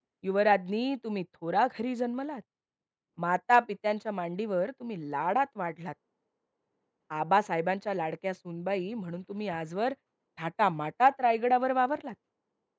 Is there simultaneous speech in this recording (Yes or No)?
No